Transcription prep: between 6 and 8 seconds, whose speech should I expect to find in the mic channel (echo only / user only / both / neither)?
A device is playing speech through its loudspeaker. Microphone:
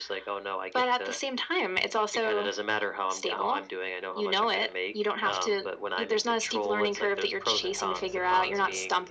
echo only